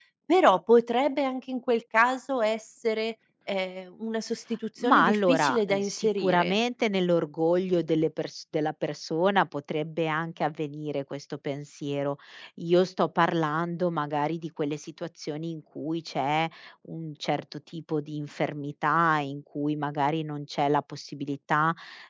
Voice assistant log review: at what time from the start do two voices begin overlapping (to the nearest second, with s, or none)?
5 s